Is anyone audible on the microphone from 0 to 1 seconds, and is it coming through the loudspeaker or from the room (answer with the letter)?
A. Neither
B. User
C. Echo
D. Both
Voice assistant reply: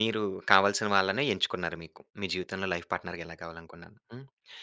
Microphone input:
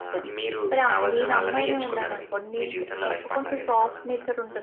D